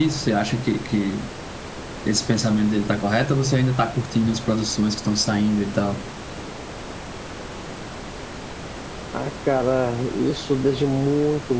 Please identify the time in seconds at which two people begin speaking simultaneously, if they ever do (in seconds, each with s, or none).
none